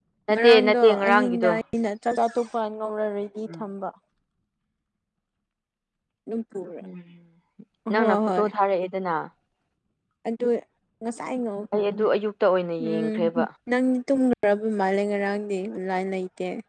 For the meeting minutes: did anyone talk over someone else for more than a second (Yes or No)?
Yes